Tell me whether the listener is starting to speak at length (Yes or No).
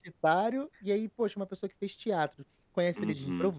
No